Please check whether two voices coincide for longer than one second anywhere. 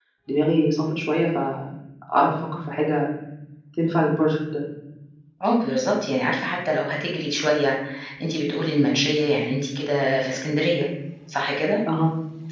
No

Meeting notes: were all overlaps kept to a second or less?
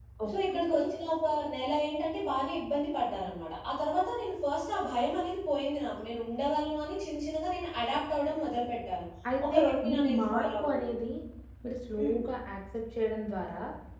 No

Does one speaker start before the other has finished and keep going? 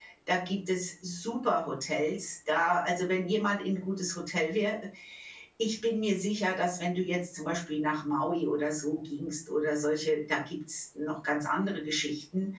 No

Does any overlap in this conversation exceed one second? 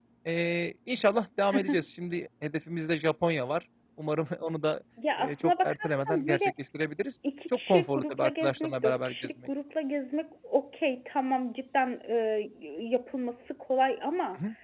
Yes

